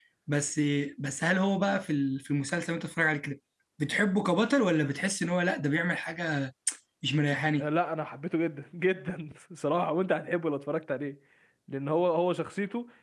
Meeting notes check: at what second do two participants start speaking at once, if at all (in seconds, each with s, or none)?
none